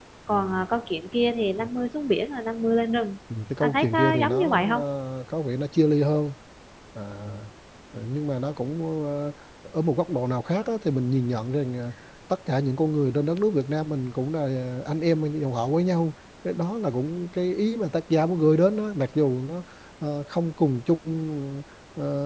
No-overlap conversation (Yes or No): No